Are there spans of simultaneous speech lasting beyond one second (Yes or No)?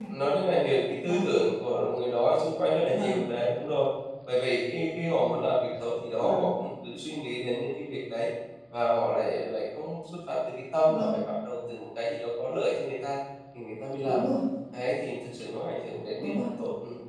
No